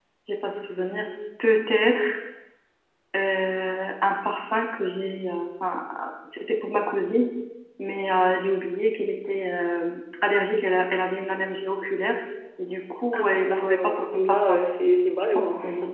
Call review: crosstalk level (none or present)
present